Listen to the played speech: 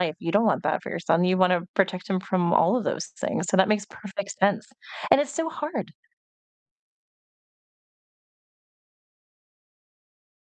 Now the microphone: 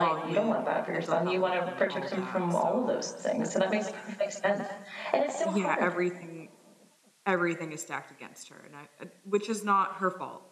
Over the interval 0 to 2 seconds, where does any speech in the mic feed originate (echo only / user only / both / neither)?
both